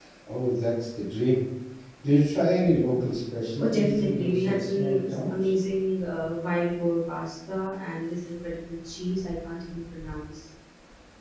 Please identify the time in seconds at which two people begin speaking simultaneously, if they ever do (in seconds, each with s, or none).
3.6 s